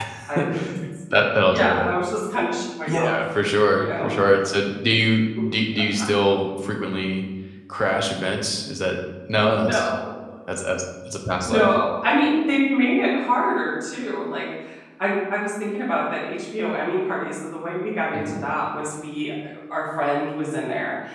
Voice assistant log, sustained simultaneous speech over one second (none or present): none